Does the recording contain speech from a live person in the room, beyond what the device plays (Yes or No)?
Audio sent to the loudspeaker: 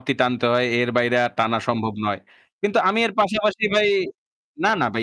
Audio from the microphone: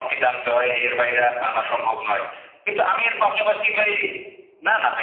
No